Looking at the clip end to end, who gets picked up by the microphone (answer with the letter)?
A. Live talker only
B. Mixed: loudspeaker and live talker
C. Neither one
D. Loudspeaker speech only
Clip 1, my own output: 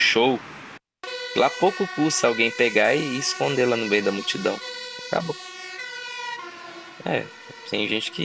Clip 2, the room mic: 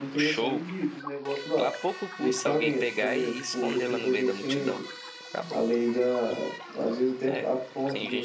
B